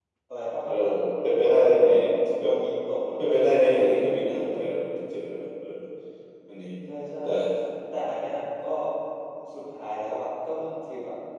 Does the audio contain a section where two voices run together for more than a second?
Yes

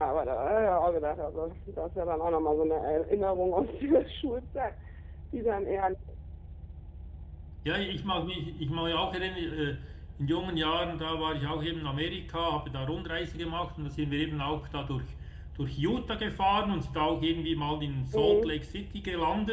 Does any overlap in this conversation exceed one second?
No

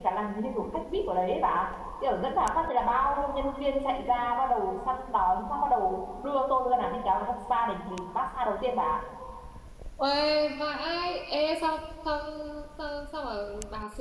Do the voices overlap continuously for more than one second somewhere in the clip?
No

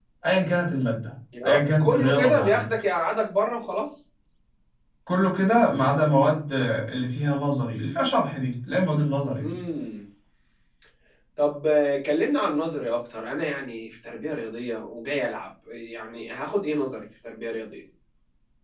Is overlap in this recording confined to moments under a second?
No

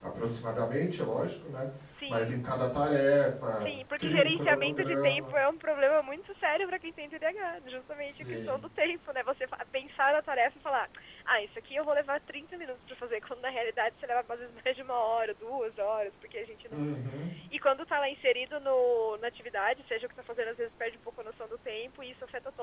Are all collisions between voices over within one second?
No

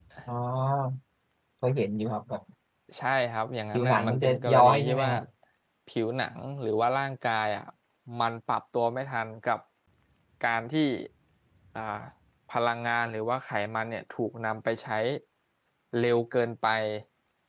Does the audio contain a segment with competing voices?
Yes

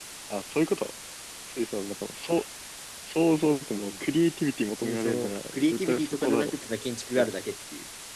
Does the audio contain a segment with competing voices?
Yes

